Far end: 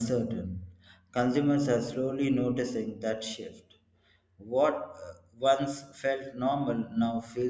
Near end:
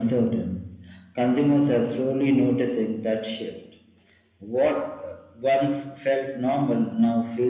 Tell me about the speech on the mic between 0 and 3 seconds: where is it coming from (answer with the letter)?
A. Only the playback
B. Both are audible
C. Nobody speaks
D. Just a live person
A